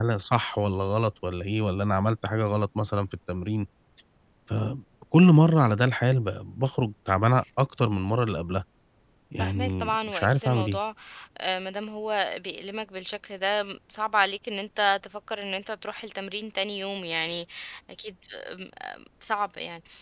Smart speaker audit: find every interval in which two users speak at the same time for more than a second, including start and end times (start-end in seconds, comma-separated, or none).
9.4-10.8